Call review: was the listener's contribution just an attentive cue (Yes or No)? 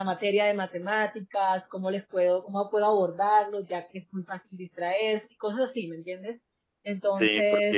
No